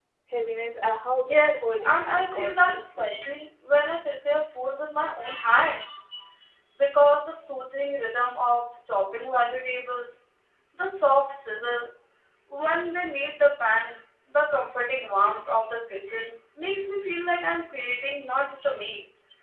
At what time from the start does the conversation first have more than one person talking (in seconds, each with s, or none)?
1.2 s